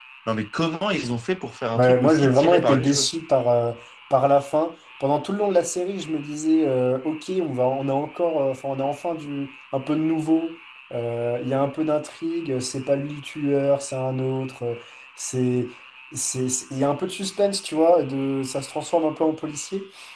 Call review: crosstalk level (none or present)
present